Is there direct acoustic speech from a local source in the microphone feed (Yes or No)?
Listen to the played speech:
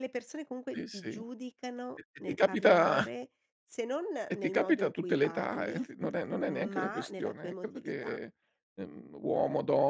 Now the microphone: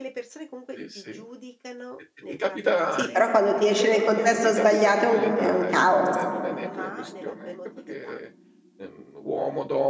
Yes